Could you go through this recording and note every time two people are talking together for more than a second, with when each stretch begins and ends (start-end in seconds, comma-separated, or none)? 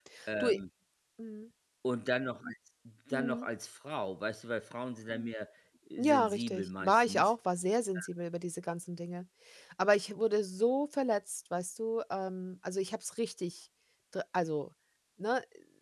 6.0-7.3